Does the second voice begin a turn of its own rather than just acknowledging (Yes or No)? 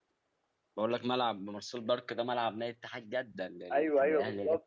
Yes